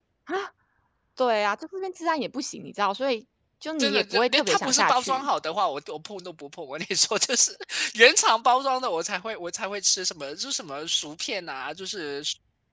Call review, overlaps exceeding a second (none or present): present